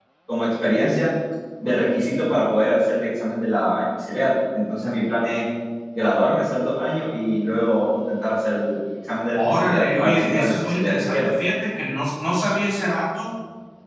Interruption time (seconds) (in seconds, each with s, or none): 9.3 s